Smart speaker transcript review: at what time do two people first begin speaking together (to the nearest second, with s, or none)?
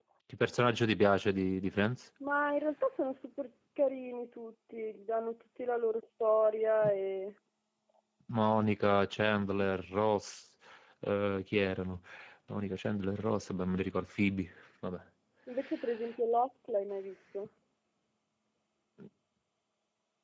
none